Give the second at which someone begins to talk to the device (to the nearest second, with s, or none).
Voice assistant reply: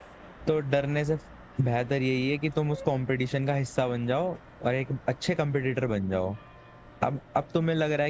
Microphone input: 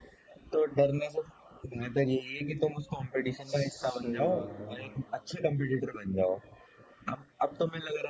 3 s